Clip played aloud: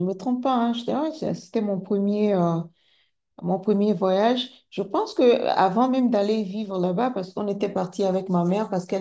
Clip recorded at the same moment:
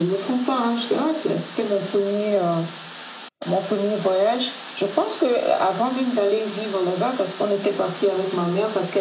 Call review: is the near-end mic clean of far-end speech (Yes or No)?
No